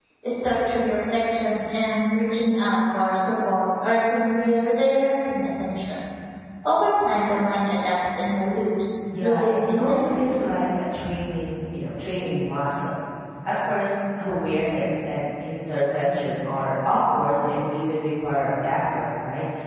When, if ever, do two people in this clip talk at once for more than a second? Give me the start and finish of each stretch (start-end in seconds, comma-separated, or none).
9.1-10.4